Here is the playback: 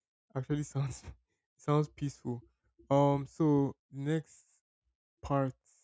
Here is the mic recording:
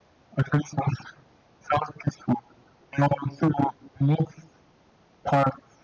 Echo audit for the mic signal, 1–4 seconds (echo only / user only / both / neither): echo only